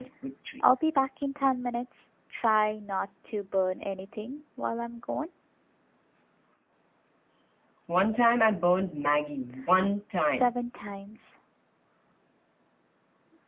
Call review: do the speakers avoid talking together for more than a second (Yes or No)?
Yes